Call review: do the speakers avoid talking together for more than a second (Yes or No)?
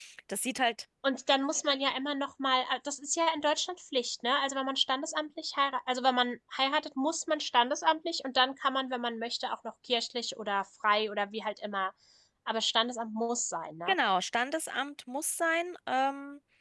Yes